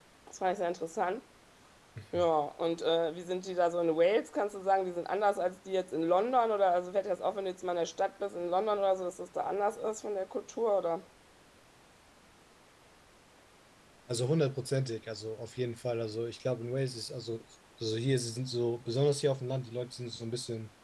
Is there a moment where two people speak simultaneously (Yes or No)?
No